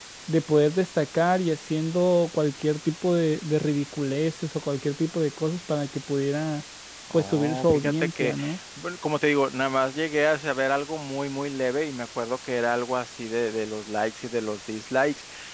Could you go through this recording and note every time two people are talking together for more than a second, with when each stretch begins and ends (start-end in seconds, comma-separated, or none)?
7.1-8.3